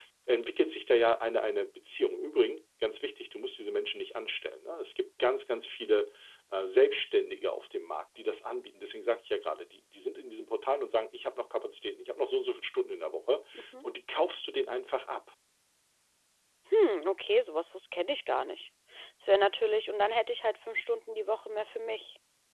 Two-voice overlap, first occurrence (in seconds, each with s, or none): none